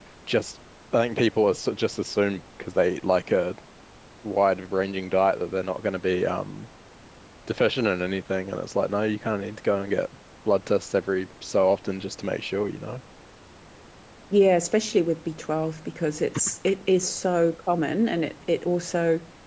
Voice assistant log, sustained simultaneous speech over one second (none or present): none